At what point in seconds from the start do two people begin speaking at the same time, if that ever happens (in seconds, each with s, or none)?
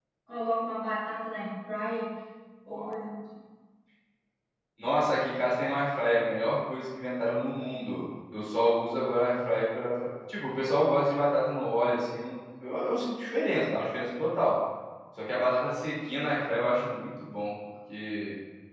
none